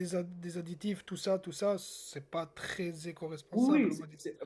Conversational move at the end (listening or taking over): taking over